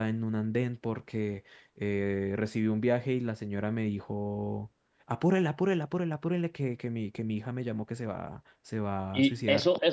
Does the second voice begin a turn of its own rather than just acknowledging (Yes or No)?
Yes